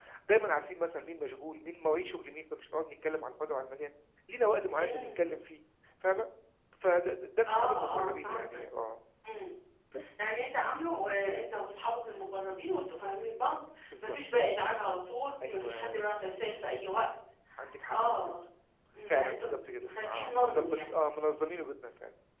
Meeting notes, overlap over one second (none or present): present